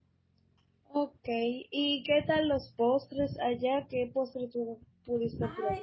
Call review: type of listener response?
taking over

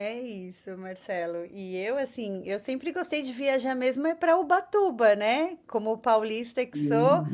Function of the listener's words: listening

